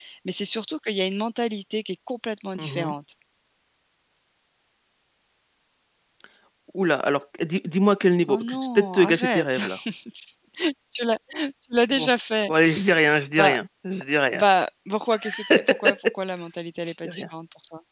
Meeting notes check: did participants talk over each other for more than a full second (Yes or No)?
Yes